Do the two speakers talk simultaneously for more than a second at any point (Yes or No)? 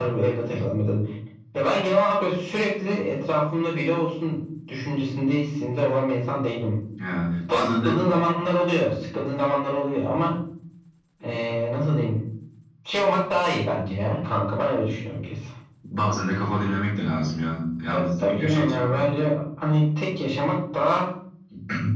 Yes